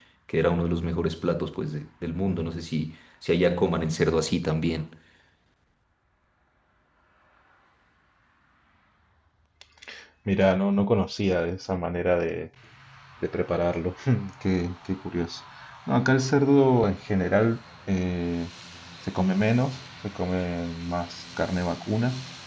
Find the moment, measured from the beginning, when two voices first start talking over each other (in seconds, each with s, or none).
none